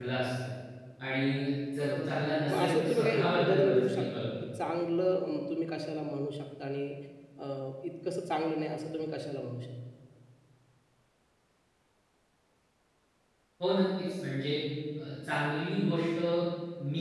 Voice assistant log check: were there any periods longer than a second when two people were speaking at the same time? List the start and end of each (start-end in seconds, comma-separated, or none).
2.5-4.3